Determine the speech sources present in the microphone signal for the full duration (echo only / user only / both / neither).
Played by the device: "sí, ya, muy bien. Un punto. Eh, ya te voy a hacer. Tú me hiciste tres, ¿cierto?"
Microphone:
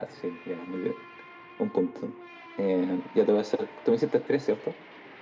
echo only